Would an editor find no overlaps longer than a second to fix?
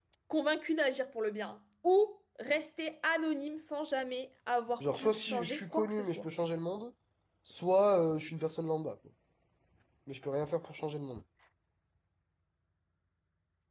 No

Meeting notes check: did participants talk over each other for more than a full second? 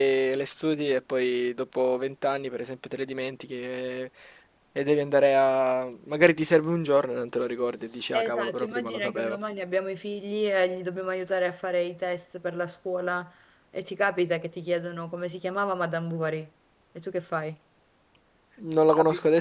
Yes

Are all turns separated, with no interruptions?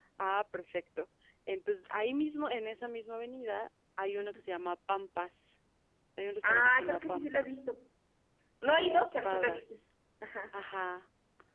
No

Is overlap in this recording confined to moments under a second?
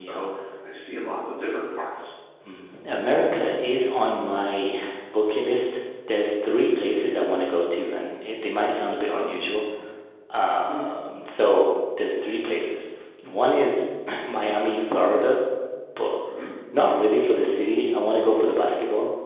Yes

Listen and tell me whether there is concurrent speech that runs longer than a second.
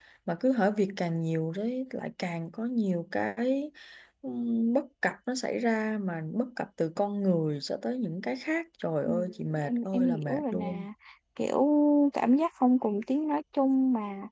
Yes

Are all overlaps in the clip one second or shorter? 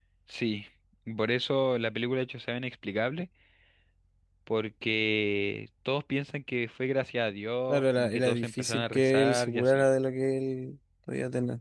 No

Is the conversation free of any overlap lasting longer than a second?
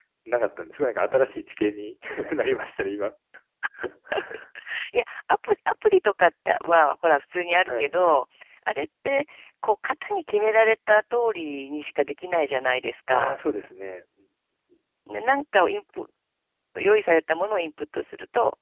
Yes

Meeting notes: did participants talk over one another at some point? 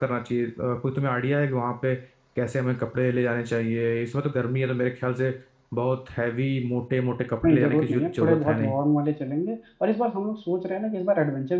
Yes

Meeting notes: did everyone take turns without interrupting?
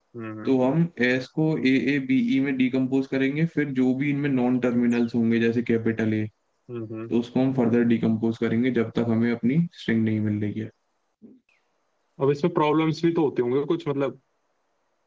Yes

